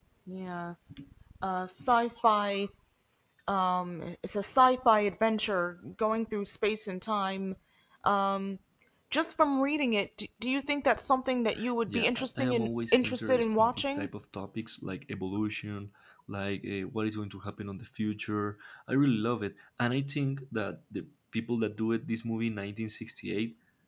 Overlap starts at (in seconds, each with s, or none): 11.9 s